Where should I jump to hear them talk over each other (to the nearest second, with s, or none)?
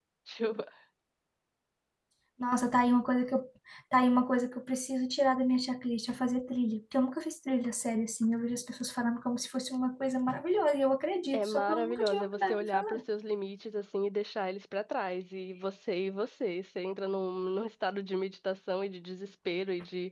11 s